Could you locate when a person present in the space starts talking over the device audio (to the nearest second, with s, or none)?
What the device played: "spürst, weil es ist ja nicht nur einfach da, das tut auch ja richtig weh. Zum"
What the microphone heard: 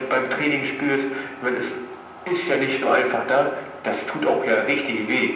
none